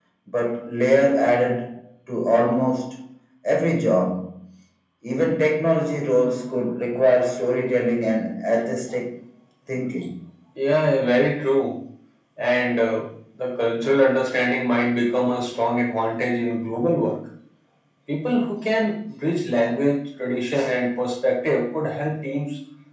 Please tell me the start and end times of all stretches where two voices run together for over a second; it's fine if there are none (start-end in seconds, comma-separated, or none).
none